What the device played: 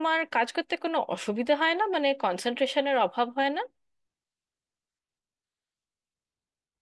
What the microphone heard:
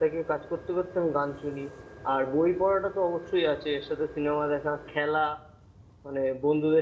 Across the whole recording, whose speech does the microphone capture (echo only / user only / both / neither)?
user only